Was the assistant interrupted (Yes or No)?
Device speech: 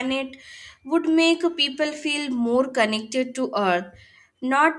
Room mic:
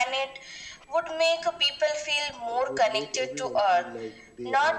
Yes